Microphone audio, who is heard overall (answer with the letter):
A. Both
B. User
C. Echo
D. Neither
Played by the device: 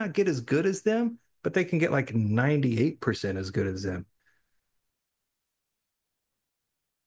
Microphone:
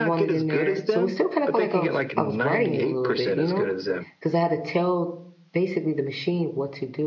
A